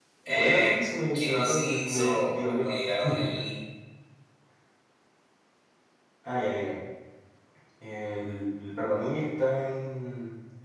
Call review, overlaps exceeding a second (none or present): present